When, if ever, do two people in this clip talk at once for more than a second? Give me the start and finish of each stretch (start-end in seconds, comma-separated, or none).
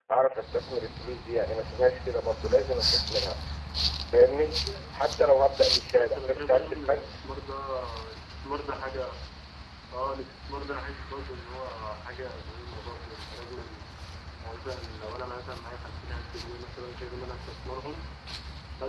5.7-7.2